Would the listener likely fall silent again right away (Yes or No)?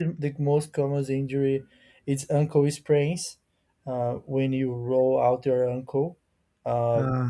Yes